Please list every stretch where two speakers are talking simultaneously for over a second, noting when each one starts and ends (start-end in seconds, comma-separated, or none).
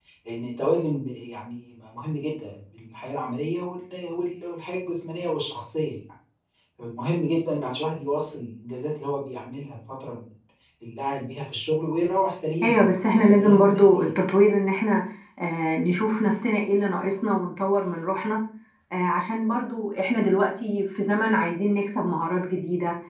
12.6-14.1